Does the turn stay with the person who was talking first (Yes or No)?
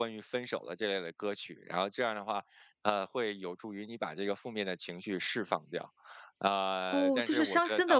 No